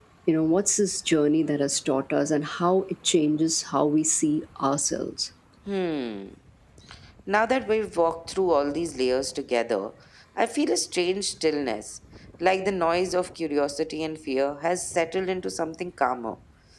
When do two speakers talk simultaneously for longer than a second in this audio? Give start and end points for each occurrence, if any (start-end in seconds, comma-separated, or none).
none